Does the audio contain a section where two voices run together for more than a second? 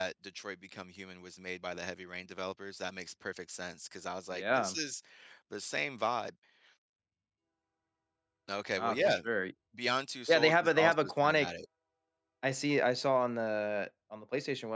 Yes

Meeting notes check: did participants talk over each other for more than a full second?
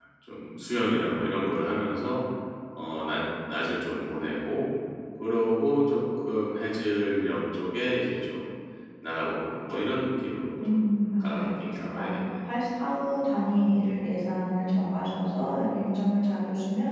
No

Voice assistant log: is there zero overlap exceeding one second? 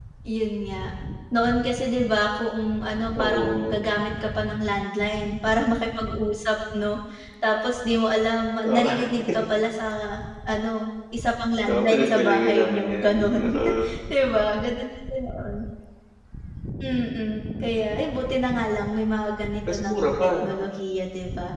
No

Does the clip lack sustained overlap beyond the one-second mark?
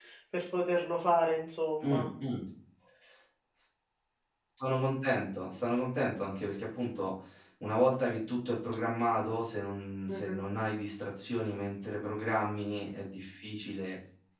Yes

